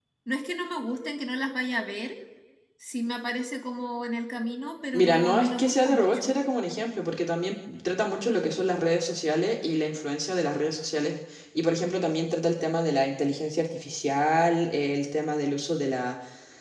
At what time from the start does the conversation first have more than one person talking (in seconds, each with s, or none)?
4.9 s